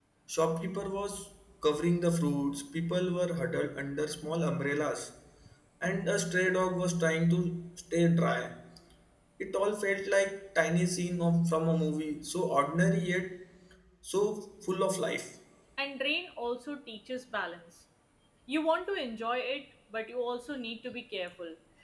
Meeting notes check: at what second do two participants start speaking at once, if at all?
none

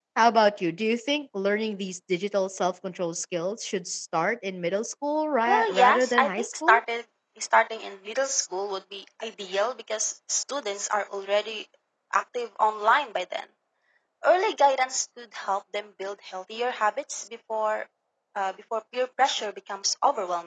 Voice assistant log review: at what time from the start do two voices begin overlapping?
5.4 s

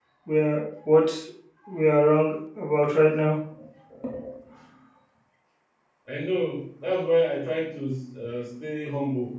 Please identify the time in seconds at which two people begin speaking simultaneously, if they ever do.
none

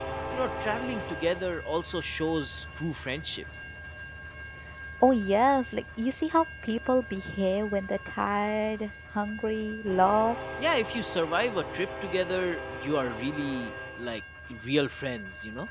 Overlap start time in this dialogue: none

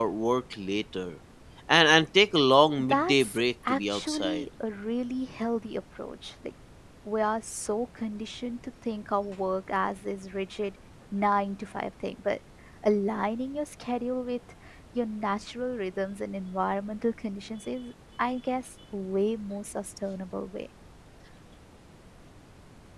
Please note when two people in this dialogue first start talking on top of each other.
2.8 s

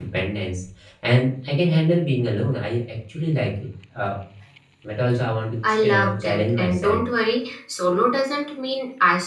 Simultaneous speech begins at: 5.7 s

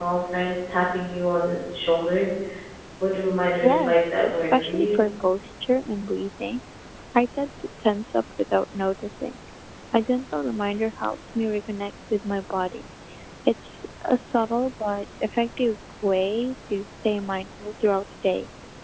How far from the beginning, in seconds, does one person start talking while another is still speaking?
3.6 s

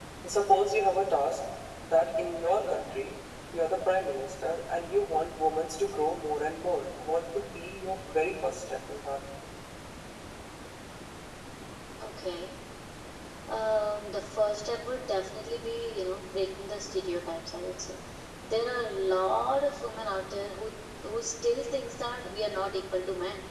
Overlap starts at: none

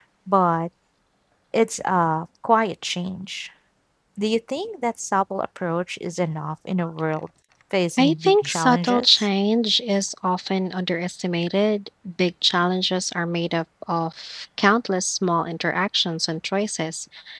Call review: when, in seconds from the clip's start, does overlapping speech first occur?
8.0 s

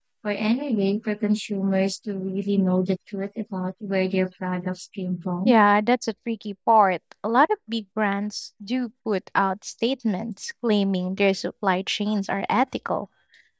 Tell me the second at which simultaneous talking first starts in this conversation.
none

